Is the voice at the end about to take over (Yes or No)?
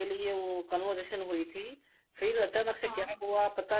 No